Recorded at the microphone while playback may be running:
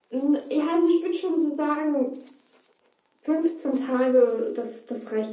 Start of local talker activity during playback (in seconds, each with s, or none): none